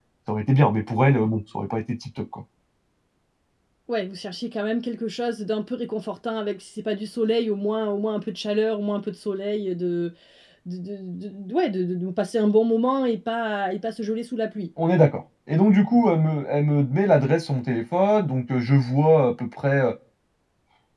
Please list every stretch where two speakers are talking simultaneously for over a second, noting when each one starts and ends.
none

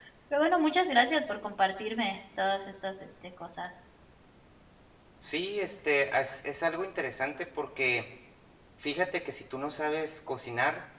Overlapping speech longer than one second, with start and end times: none

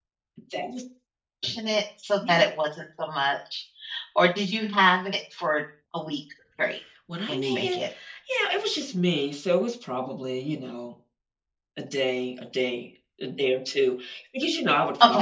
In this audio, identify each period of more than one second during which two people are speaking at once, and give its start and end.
none

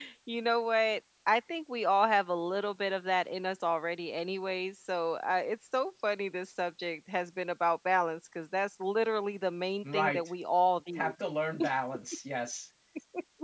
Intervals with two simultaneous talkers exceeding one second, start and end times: none

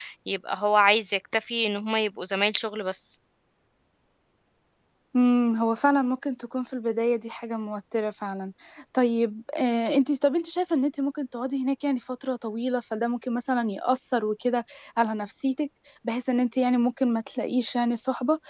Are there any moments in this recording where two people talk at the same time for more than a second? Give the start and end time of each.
none

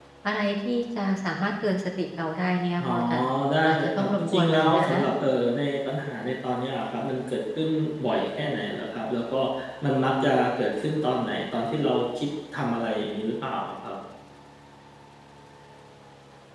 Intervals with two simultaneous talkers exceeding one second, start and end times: 3.7-5.0

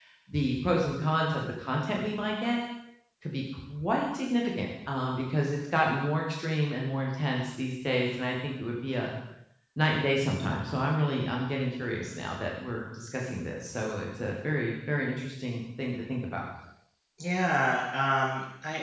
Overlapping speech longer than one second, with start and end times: none

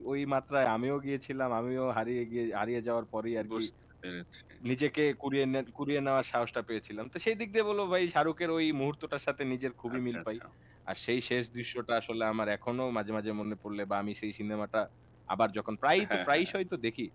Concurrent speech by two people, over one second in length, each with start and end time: none

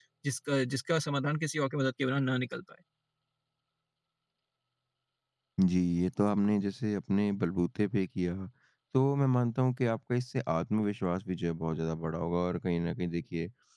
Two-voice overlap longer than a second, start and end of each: none

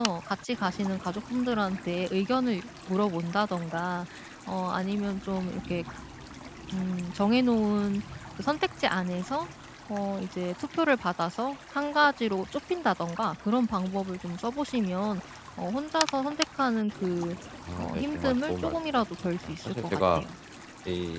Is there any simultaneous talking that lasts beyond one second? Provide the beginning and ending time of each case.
17.8-20.2

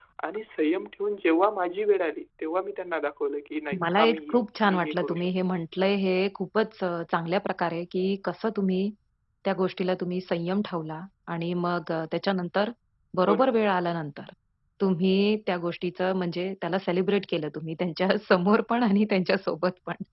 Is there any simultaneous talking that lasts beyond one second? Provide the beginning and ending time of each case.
3.8-5.3

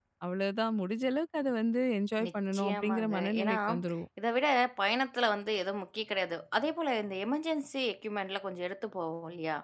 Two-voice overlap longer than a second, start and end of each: 2.3-3.5

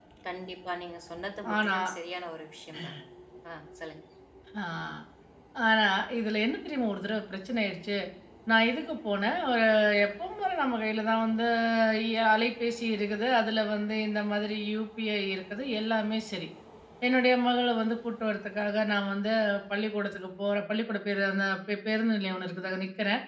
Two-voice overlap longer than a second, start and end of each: none

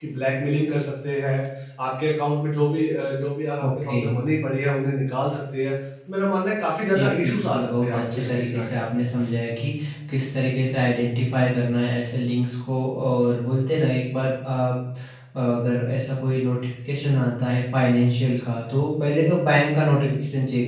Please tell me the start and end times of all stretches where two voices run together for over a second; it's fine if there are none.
6.9-8.8

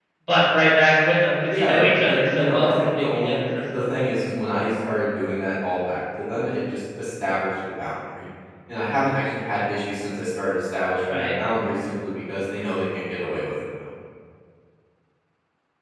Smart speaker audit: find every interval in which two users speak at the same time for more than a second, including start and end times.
1.4-4.1

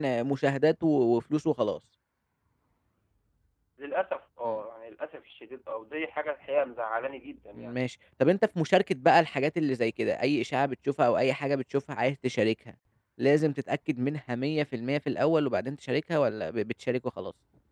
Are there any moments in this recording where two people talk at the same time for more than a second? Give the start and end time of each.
none

